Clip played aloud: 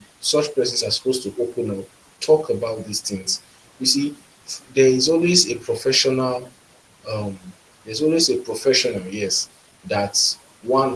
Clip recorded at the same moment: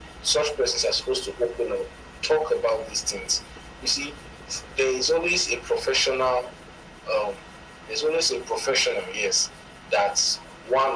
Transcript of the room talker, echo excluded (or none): none